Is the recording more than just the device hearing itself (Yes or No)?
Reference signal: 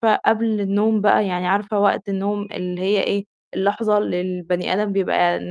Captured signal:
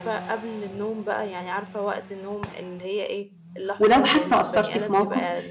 Yes